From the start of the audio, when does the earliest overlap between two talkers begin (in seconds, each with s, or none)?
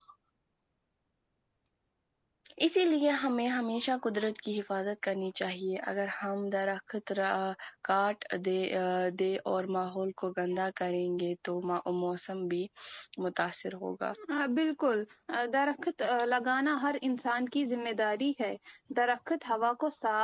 none